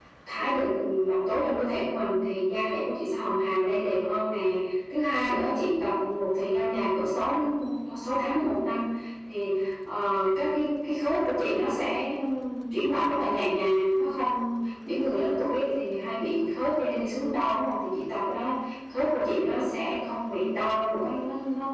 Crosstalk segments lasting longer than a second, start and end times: none

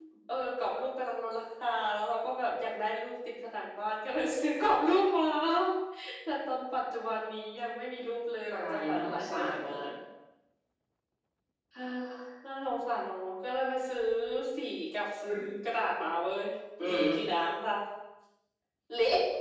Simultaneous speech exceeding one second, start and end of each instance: 8.5-9.8

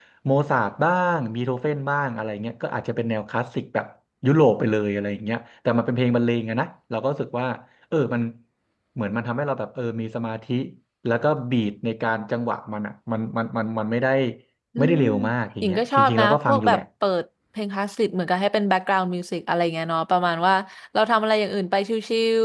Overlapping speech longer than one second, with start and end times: 15.6-16.8

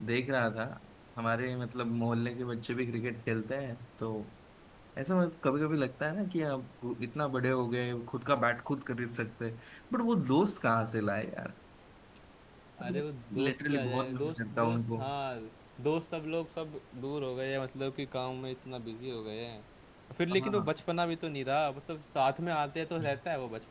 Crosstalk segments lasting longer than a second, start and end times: 13.4-15.0

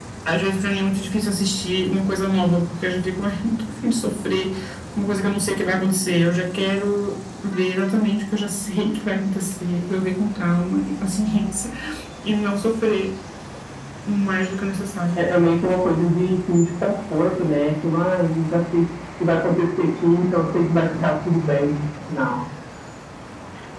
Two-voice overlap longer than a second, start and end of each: none

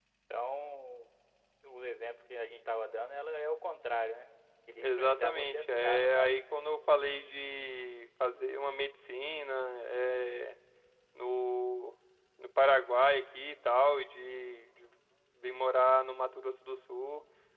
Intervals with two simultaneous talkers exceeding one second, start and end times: 4.8-6.3

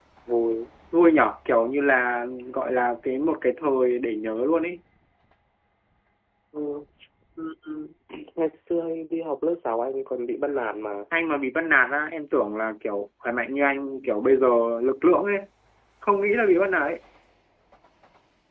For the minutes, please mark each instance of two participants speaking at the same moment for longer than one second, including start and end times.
none

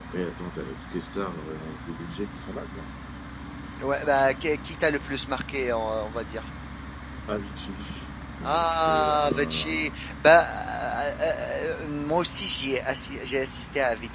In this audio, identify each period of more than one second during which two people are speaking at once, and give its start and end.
8.4-9.9

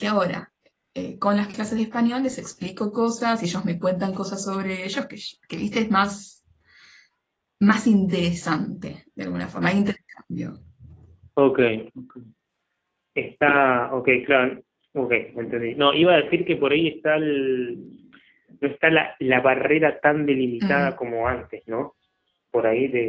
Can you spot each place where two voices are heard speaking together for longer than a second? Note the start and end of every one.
none

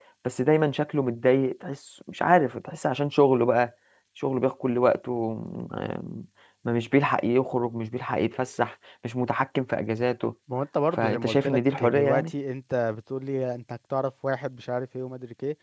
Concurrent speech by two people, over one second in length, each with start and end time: 10.9-12.3

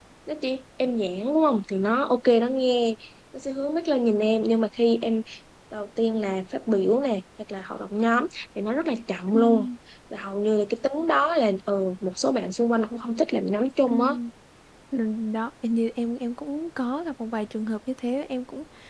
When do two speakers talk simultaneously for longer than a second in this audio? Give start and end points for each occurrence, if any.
none

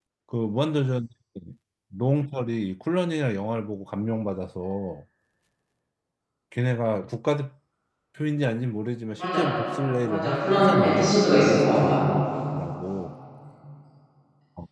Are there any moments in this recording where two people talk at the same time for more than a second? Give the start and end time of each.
10.1-12.0

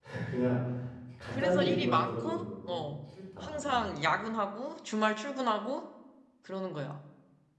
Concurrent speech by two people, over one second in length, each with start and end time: 1.3-2.8

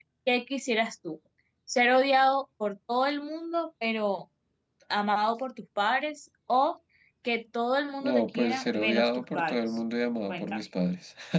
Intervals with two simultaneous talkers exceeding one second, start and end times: 8.0-9.8

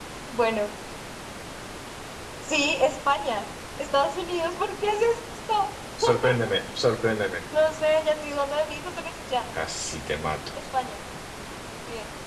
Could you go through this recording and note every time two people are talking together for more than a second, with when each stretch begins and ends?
none

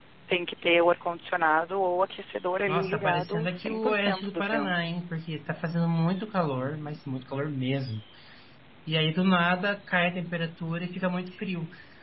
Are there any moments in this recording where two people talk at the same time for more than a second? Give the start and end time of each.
2.7-4.7

